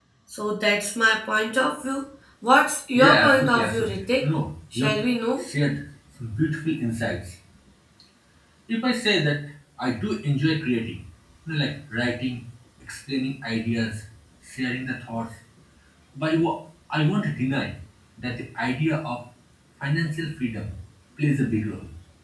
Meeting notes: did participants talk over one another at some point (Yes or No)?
Yes